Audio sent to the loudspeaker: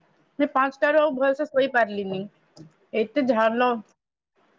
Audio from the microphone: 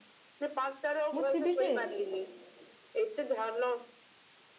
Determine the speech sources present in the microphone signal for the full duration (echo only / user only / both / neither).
both